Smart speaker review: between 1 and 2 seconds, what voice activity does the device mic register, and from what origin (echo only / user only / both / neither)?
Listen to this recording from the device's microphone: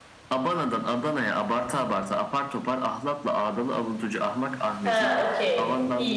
echo only